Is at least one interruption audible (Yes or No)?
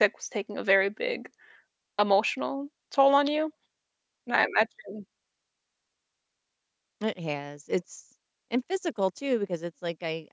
No